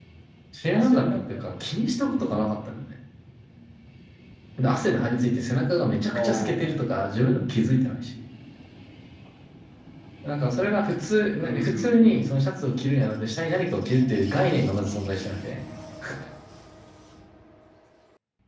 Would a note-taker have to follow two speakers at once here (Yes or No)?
Yes